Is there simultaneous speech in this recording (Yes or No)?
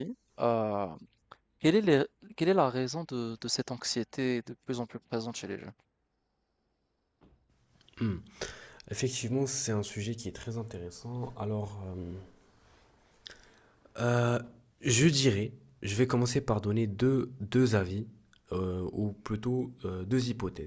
No